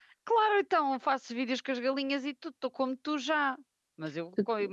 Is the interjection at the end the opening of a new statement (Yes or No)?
No